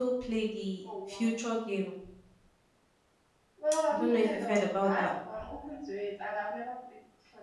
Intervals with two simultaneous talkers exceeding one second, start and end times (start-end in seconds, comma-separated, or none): 3.9-5.1